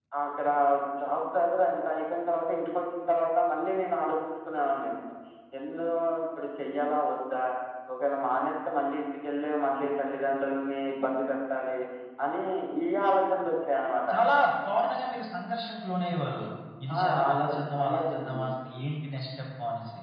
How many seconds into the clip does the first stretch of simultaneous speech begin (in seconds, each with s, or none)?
17.0 s